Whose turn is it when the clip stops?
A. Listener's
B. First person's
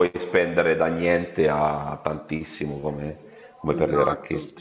A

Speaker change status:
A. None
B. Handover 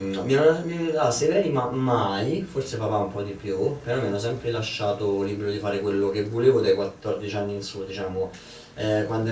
A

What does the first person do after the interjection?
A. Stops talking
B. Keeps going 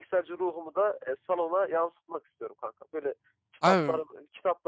B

